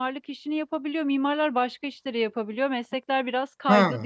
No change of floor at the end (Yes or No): No